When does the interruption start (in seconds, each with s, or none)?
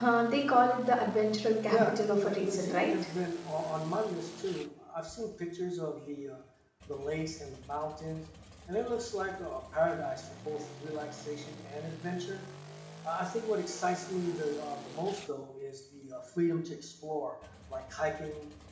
1.7 s